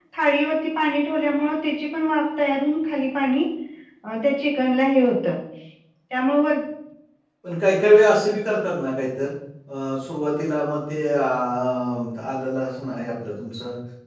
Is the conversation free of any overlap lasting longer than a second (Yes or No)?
Yes